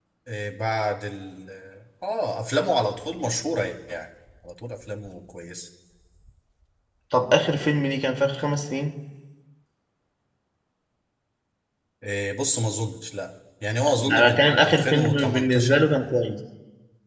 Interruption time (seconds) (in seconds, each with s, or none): 13.8 s